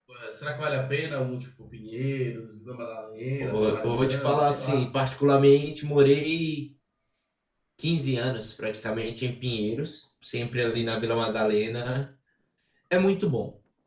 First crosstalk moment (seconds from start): 3.4 s

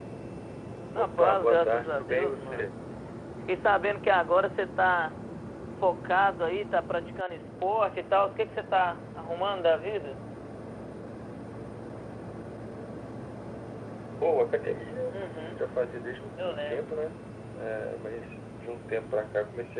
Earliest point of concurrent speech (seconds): 1.0 s

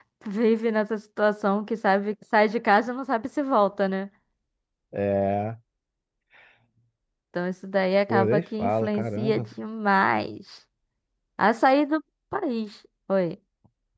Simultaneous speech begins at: 8.1 s

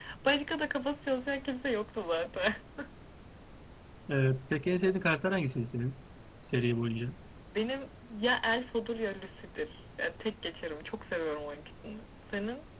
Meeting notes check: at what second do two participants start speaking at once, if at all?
none

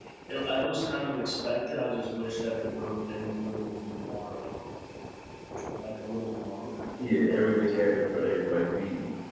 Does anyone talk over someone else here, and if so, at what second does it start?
7.0 s

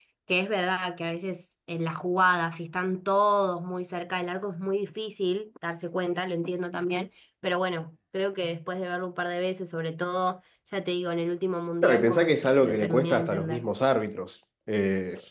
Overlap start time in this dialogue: 11.8 s

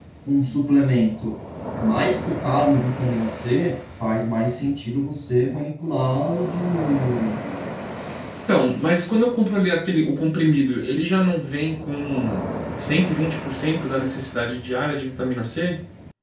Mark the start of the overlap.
none

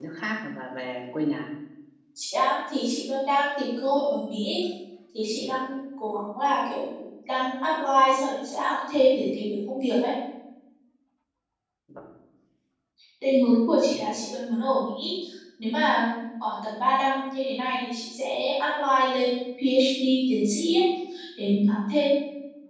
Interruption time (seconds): none

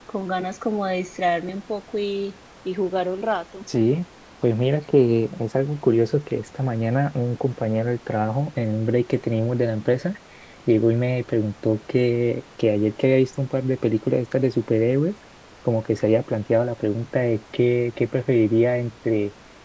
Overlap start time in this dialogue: none

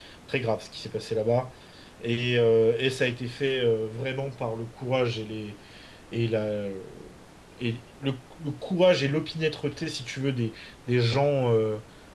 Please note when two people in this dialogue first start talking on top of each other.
none

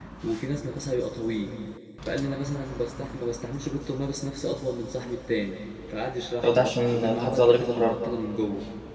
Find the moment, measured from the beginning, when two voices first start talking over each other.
6.4 s

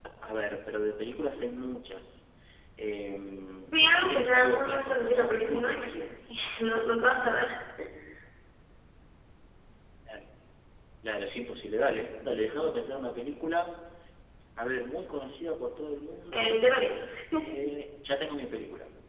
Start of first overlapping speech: 3.6 s

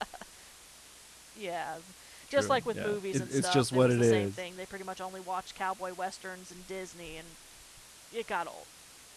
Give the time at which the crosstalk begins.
2.3 s

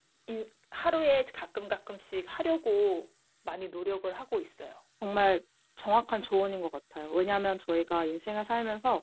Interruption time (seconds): none

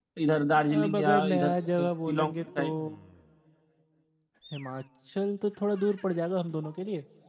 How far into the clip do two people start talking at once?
0.8 s

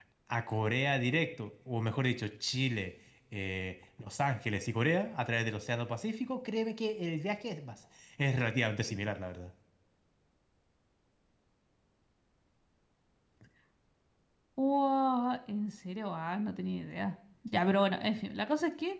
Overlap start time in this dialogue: none

